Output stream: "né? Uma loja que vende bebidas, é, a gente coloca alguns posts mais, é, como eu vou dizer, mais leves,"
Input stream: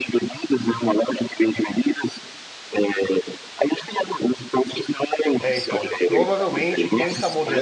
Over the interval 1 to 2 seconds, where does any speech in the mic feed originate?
echo only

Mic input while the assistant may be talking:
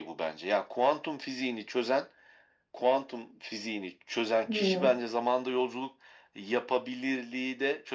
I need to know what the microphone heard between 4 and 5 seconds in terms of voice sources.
both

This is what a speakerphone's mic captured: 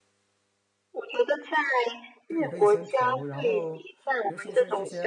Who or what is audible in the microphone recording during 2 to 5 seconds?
both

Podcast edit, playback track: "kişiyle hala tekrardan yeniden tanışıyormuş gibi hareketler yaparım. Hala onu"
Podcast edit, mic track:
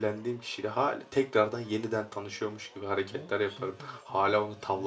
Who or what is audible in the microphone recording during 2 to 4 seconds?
both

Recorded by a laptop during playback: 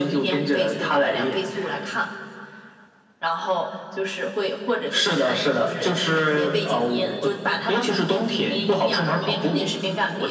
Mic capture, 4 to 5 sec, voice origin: echo only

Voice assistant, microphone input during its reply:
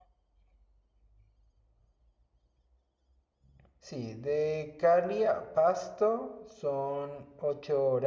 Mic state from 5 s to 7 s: user only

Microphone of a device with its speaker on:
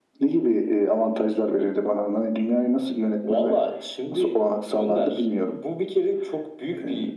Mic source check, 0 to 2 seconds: echo only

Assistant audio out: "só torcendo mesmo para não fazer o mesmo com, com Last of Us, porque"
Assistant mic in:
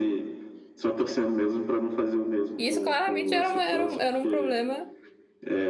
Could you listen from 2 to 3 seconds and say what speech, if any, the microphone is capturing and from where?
both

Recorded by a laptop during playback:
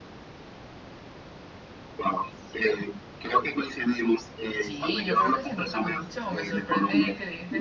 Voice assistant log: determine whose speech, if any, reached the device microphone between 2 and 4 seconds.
echo only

